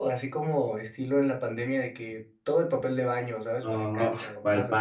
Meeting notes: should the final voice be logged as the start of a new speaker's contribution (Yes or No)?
Yes